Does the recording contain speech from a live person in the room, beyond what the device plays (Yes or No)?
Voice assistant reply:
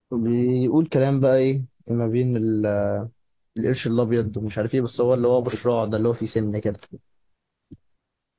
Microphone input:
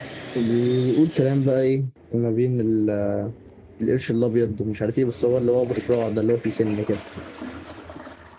No